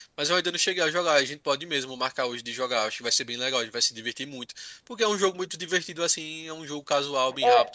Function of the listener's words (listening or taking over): taking over